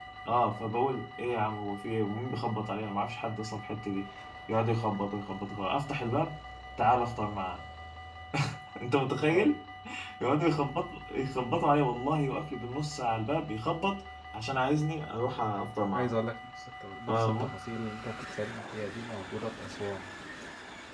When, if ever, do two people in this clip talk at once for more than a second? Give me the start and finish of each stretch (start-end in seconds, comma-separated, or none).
none